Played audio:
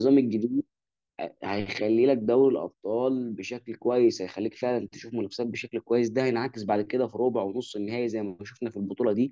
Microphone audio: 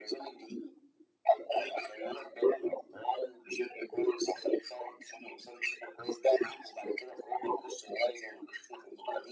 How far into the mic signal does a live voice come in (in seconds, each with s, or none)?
none